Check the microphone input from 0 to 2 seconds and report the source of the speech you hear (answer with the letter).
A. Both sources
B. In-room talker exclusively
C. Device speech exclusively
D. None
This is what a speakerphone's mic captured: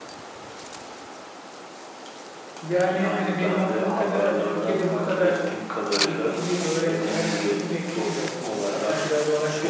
D